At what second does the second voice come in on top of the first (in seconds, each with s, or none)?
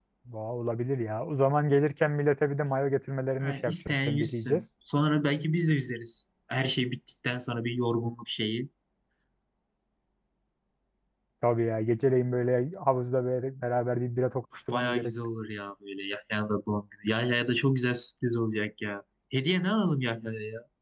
3.4 s